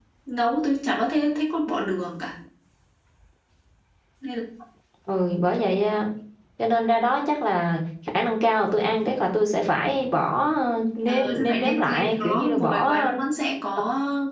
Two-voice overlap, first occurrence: 11 s

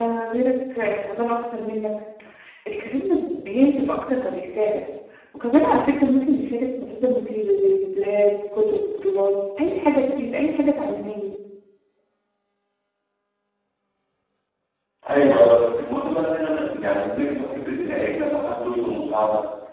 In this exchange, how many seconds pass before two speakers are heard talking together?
none

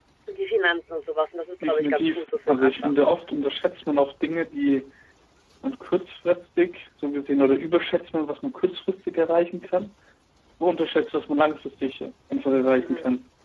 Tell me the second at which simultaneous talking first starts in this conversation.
2 s

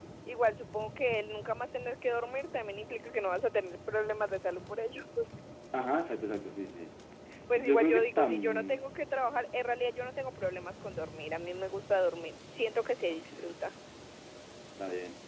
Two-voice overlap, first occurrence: 8 s

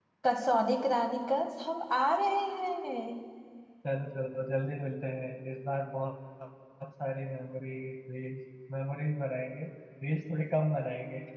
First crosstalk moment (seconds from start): none

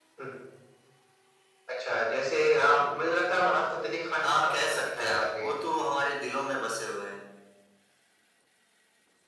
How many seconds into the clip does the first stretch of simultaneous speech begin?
4 s

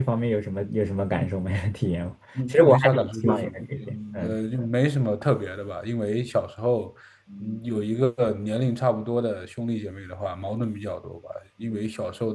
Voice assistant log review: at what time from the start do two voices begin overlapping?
2 s

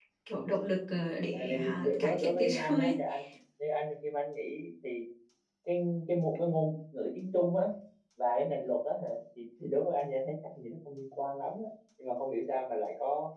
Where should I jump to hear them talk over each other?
1 s

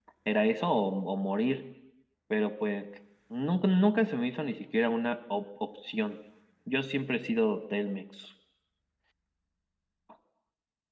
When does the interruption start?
none

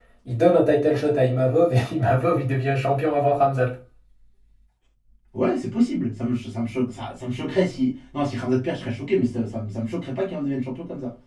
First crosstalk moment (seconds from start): none

